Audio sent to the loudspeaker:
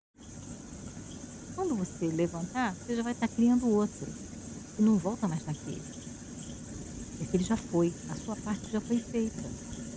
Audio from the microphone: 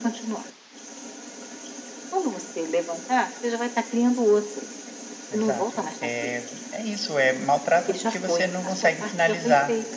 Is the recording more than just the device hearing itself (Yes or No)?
Yes